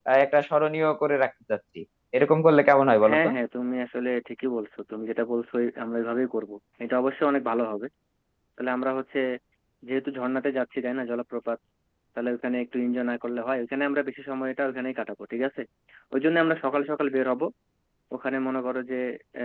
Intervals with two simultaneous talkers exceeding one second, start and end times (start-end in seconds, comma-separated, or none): none